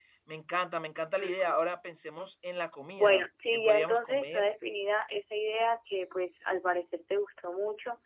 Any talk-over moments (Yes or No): Yes